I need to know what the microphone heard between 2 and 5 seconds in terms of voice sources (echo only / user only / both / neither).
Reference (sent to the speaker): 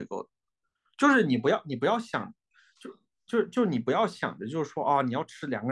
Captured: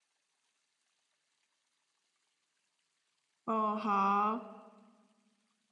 user only